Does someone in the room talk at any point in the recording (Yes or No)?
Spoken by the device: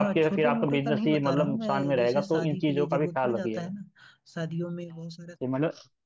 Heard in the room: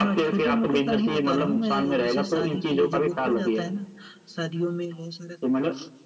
No